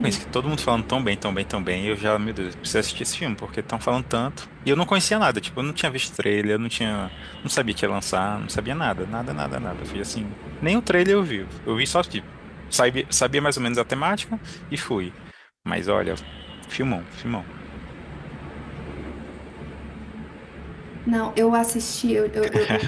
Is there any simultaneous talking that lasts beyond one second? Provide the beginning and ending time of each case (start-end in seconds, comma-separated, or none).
none